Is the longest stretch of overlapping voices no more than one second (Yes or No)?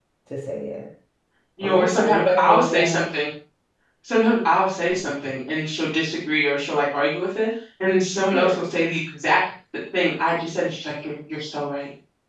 No